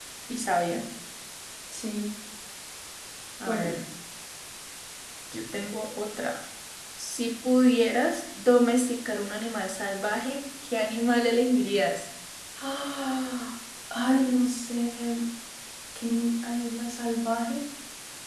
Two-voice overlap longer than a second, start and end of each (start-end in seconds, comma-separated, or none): none